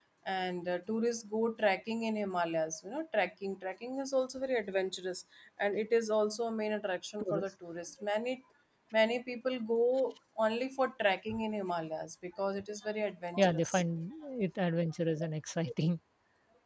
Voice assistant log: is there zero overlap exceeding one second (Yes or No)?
Yes